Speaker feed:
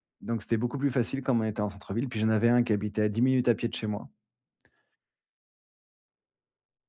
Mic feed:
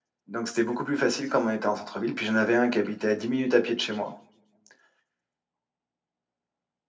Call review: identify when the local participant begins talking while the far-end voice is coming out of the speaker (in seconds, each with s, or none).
none